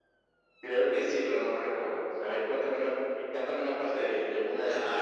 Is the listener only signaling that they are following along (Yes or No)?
No